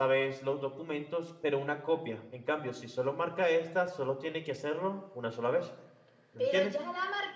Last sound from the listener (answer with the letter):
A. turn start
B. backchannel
A